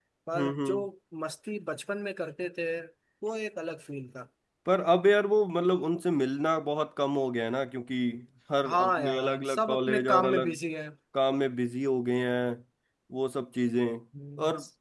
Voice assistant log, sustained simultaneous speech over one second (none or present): present